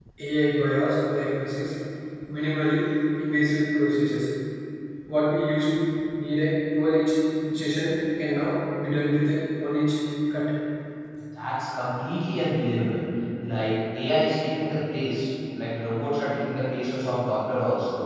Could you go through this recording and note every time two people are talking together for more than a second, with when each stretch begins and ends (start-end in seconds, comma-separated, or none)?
none